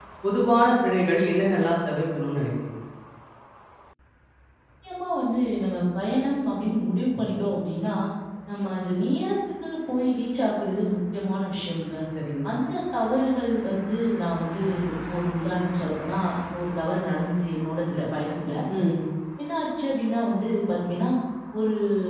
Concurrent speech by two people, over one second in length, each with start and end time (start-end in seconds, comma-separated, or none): none